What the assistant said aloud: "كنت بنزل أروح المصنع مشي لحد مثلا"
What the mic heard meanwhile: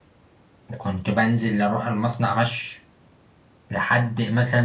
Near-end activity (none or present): none